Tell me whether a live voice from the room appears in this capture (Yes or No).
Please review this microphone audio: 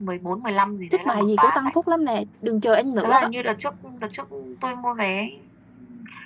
Yes